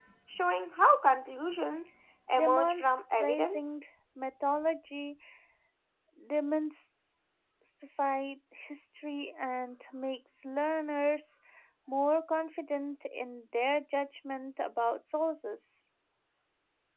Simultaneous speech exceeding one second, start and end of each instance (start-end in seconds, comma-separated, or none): 2.3-3.6